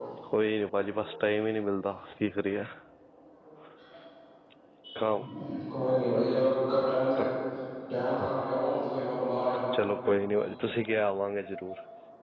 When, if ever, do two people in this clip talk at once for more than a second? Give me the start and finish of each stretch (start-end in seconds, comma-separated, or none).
none